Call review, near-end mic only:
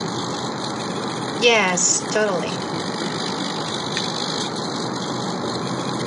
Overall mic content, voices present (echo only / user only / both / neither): user only